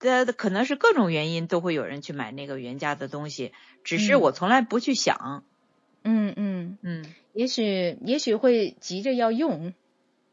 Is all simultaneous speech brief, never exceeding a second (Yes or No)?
Yes